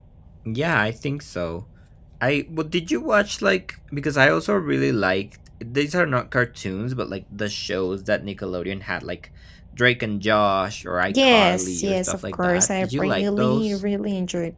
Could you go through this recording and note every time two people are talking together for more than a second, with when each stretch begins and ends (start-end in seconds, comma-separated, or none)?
11.1-13.8